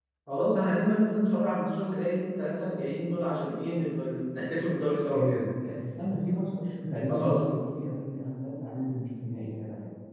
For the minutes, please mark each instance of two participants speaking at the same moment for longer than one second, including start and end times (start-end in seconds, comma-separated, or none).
none